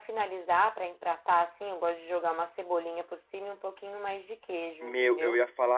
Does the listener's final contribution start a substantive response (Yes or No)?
Yes